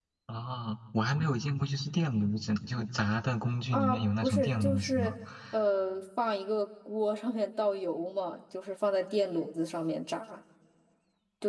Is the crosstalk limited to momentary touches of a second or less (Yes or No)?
No